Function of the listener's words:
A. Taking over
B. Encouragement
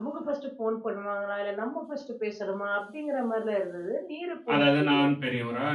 A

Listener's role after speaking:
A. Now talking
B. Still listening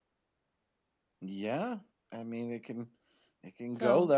B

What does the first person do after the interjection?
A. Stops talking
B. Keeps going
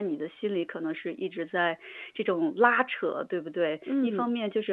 B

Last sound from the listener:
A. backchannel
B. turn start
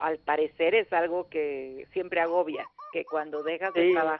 A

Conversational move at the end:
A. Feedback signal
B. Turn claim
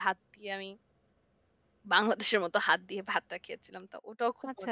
B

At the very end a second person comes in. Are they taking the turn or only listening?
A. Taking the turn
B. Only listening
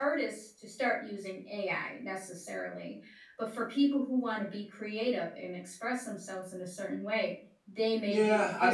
A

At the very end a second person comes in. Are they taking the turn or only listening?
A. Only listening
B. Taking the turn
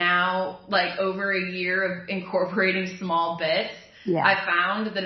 A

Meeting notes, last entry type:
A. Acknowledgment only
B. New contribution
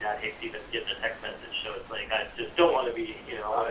B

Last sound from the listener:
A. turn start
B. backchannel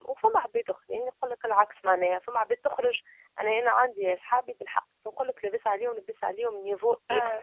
B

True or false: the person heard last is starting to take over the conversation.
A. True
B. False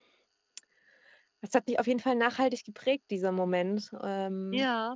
A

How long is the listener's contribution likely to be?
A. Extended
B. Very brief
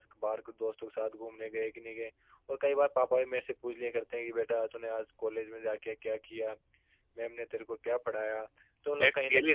A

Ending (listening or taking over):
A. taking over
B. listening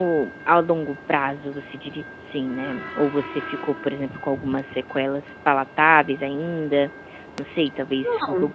B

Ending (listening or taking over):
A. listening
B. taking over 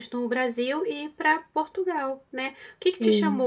A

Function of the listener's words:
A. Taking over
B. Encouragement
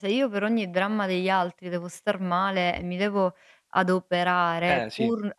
B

